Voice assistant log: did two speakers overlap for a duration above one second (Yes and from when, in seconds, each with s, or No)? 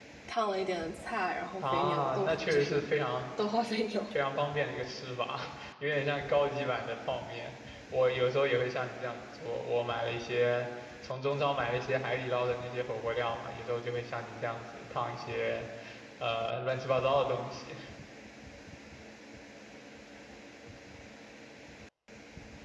Yes, from 1.6 s